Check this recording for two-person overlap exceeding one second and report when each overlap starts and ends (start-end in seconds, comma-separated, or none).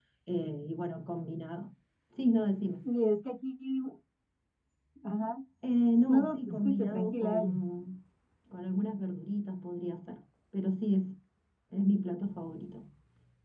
6.1-7.6